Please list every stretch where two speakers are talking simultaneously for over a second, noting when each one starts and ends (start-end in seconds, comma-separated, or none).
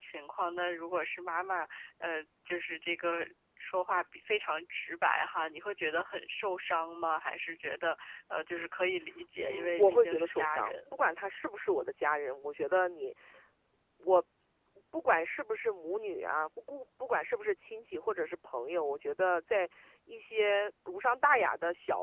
9.4-10.8